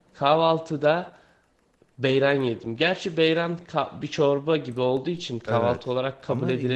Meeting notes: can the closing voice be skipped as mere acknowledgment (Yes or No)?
No